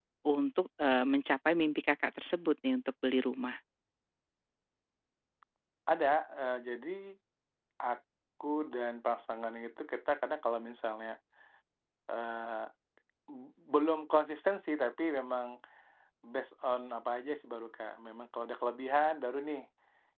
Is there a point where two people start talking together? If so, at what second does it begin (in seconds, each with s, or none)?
none